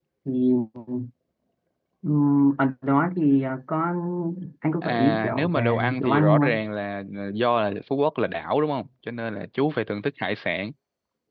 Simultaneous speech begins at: 4.8 s

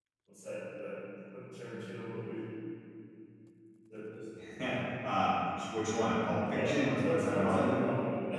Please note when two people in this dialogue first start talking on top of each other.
6.4 s

